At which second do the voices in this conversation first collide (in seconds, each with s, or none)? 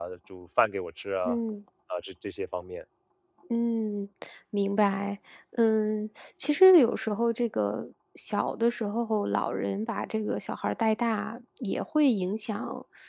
none